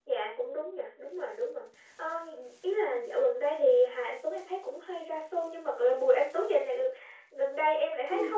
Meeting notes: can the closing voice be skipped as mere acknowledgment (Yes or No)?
No